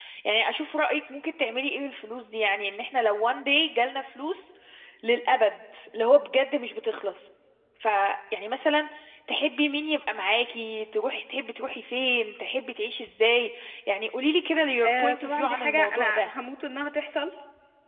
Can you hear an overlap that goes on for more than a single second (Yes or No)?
Yes